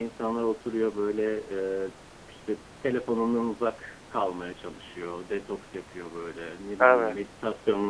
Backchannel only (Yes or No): Yes